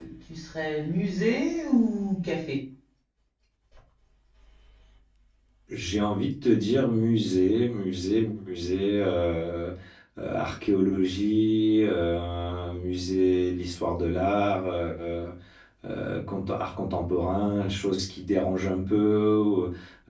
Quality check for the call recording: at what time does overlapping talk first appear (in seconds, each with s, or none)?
none